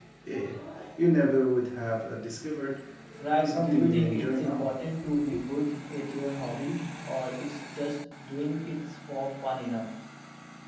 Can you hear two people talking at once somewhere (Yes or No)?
Yes